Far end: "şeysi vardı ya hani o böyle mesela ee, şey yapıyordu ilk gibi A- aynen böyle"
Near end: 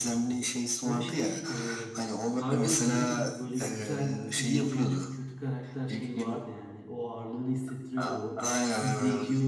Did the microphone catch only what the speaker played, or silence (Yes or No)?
No